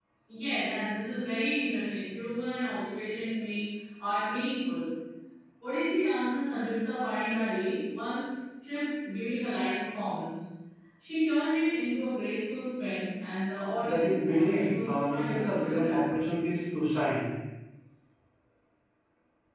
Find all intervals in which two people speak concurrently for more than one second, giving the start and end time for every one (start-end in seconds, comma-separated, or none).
13.8-16.1